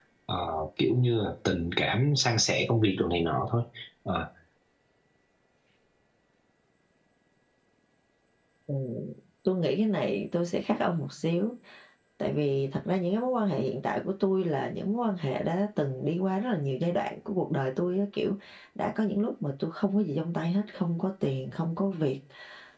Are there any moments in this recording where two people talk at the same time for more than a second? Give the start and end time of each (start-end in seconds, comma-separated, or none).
none